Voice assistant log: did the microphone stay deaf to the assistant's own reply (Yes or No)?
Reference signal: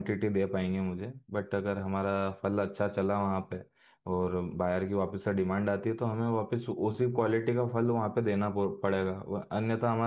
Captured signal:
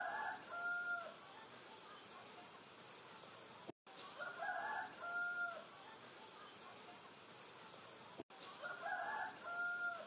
Yes